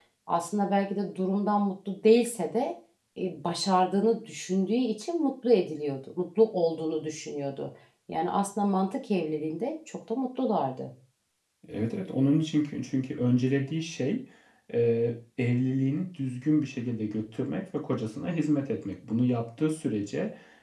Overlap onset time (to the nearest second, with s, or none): none